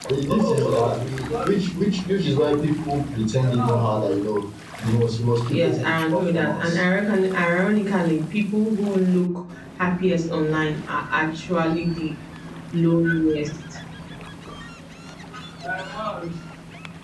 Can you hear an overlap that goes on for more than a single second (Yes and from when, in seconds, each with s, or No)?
Yes, from 5.5 s